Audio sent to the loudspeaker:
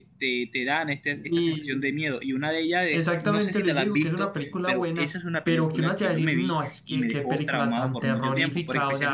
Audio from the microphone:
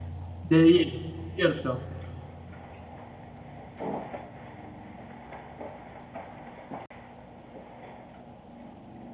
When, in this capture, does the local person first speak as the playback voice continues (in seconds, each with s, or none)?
0.4 s